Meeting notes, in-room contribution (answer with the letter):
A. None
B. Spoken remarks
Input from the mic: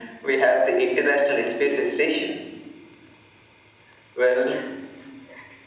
A